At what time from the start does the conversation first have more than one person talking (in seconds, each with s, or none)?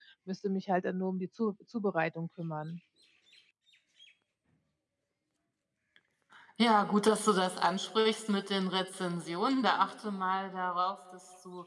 none